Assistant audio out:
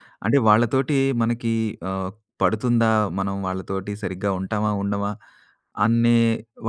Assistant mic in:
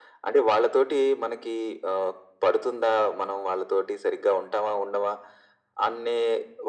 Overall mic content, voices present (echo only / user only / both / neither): echo only